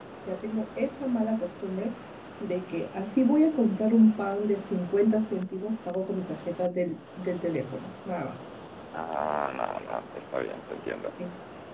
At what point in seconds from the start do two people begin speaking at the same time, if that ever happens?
none

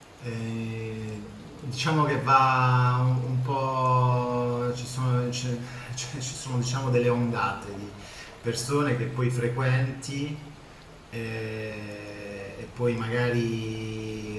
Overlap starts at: none

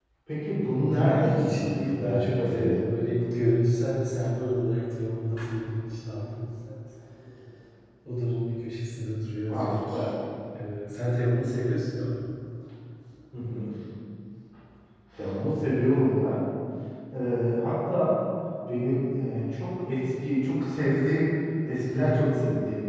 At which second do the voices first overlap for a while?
0.9 s

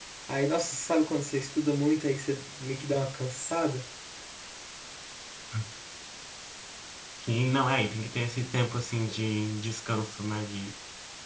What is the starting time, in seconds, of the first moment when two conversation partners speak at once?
none

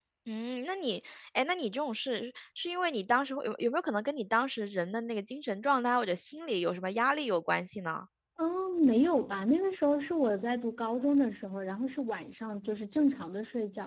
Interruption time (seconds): none

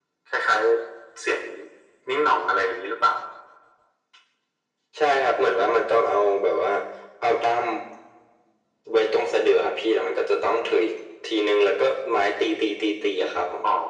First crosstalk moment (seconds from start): none

